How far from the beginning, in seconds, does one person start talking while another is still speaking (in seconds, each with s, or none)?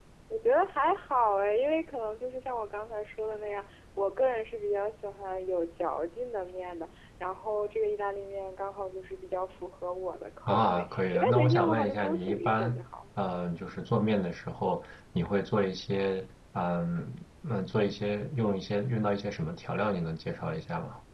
10.5 s